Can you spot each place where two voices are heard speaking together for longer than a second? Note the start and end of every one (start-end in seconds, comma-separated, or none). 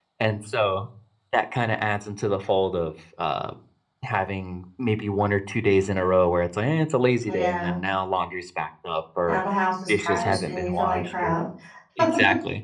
9.9-11.3